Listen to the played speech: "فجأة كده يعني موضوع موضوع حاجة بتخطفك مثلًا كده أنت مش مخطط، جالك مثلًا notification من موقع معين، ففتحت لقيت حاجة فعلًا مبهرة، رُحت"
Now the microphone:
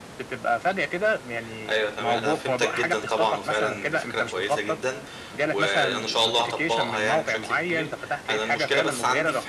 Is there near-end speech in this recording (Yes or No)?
Yes